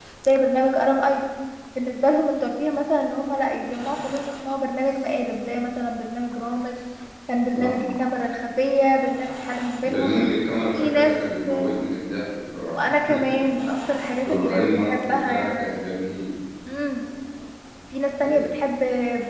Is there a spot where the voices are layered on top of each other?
Yes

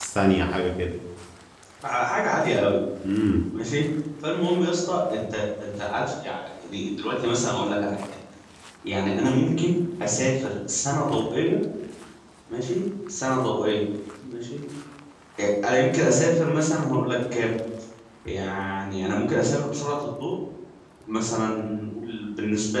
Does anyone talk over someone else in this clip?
No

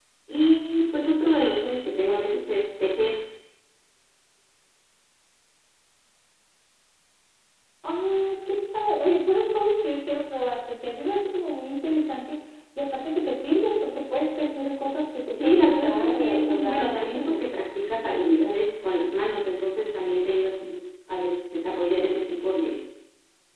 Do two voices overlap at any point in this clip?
Yes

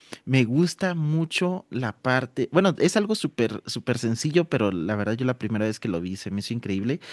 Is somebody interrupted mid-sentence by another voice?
No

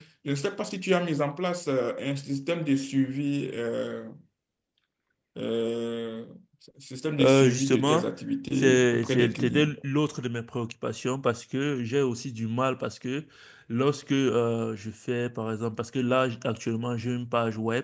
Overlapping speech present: Yes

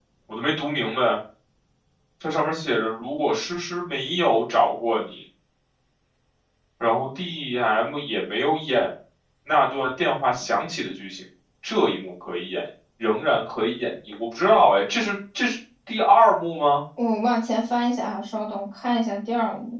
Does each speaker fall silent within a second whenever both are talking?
Yes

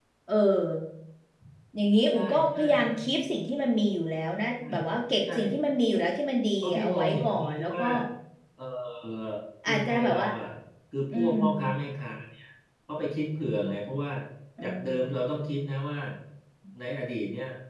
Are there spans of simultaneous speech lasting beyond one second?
Yes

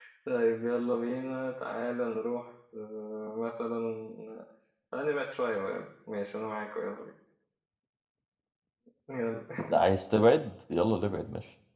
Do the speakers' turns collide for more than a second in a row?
No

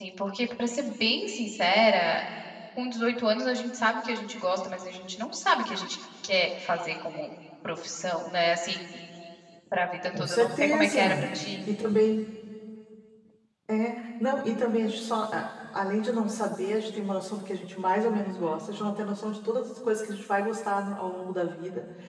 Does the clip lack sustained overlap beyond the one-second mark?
No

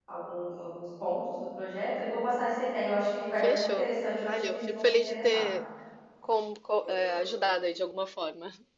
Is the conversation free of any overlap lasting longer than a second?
No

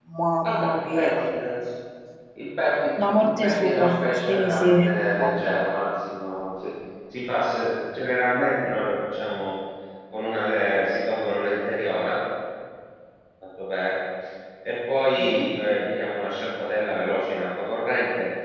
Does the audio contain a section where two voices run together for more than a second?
Yes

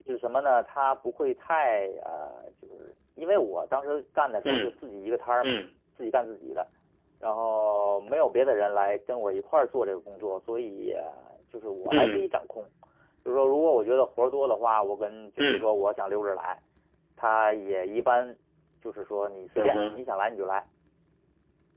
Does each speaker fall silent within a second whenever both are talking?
Yes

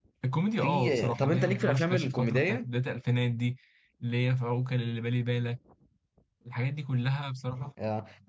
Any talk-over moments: Yes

